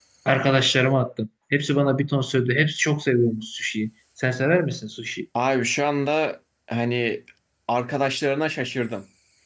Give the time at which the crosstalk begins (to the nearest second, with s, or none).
none